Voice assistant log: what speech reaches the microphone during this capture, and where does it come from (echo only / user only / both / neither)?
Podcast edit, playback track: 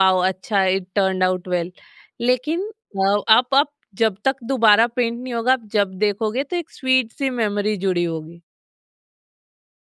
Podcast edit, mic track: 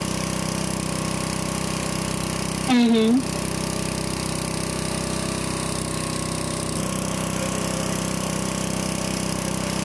user only